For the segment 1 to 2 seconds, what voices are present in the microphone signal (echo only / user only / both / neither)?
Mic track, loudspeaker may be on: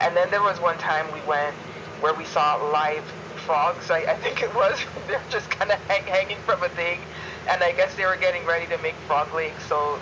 echo only